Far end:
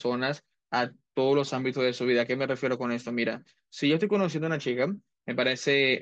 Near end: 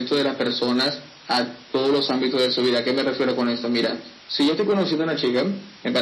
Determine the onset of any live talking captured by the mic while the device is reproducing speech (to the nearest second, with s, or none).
none